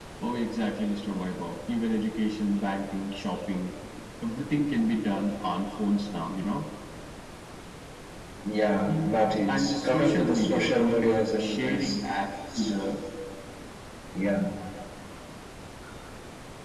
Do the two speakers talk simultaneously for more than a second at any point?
Yes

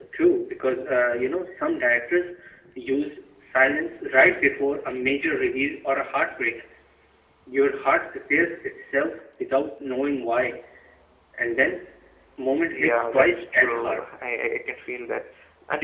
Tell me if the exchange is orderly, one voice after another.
No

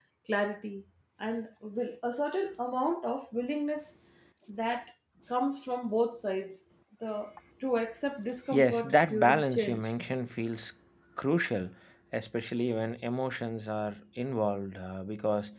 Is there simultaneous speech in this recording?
Yes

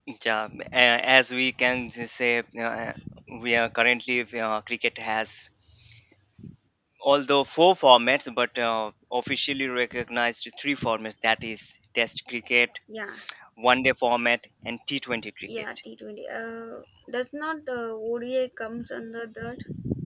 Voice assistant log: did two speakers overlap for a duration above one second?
No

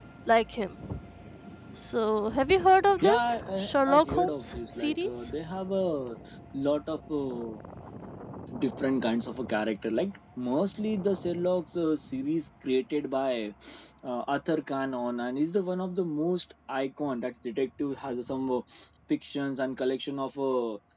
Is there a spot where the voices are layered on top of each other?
Yes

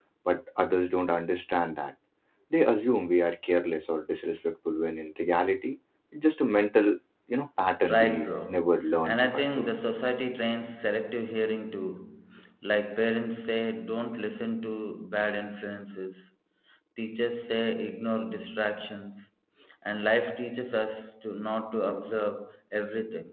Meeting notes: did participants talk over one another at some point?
Yes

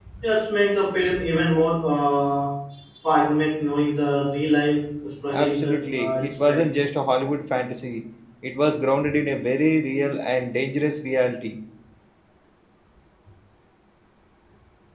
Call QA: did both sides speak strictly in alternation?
No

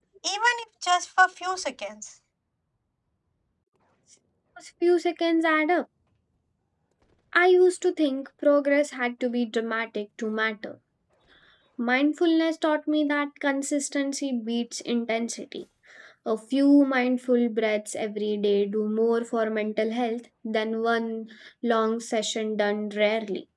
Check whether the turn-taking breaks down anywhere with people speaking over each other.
No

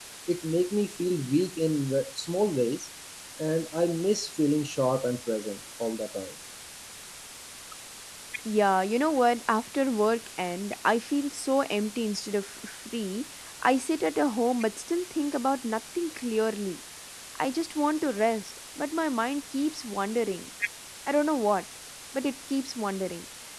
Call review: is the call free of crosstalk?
Yes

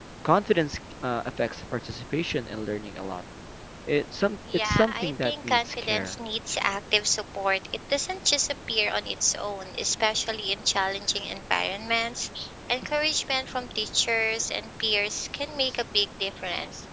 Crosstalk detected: Yes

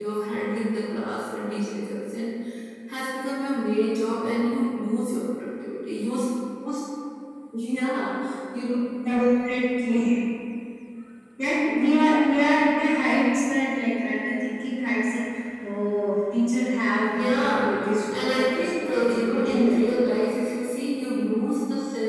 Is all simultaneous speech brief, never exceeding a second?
No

